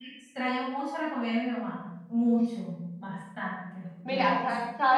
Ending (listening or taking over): taking over